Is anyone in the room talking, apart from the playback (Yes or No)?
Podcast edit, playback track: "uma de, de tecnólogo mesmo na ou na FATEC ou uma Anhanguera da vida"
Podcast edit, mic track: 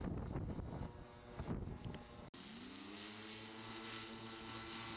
No